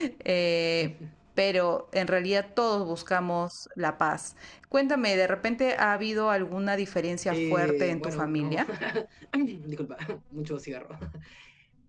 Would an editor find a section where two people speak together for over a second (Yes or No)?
Yes